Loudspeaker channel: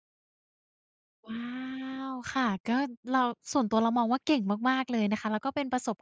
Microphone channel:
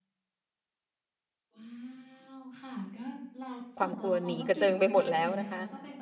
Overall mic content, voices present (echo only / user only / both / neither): both